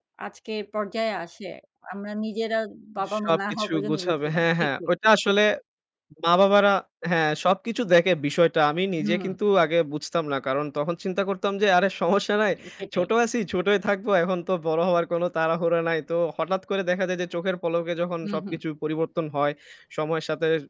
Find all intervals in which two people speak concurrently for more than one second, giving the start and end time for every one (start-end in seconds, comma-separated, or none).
3.2-4.9